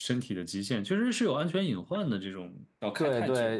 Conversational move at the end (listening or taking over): taking over